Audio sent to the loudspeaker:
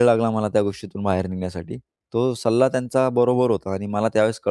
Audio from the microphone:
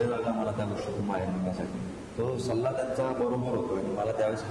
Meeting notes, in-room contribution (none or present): none